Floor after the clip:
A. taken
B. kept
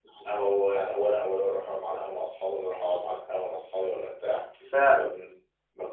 B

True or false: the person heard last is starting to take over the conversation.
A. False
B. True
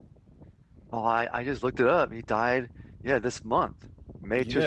B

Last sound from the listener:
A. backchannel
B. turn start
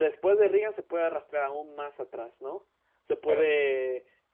A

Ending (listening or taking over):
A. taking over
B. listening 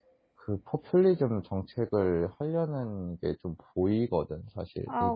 A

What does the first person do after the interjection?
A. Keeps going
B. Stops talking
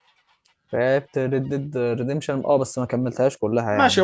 B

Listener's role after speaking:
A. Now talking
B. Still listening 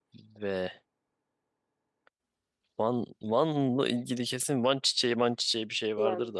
A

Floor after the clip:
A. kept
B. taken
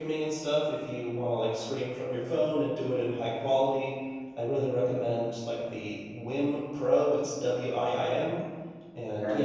A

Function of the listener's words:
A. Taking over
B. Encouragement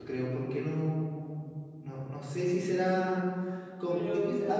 B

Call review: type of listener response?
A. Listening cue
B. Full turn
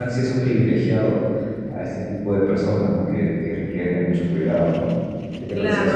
B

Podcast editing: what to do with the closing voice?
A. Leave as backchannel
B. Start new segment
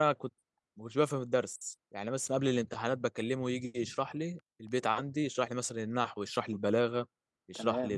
A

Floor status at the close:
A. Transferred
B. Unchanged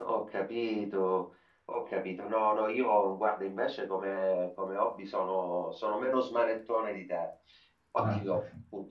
B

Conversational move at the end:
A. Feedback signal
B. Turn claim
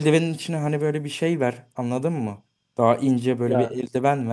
A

